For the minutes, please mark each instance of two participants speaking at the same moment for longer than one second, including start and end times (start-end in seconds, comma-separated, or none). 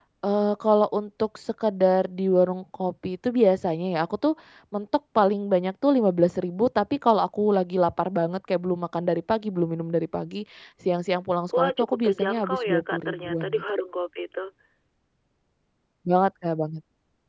11.6-13.6